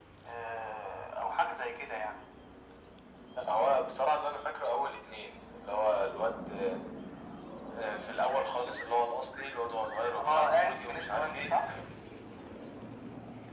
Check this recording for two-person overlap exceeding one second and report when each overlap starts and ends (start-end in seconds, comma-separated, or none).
10.2-11.6